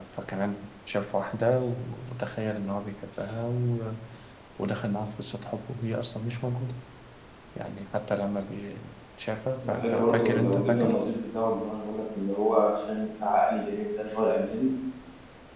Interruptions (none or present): present